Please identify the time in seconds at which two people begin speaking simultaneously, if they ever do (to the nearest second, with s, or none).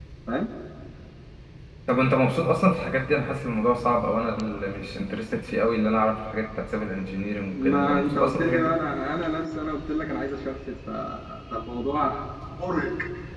8 s